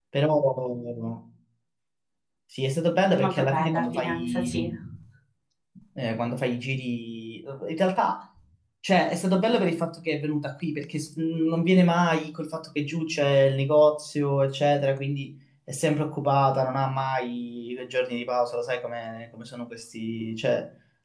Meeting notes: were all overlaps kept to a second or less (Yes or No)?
No